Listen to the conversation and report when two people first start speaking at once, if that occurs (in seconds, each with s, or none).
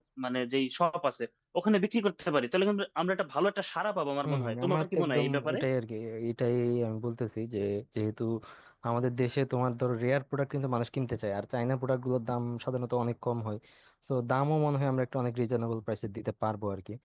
4.2 s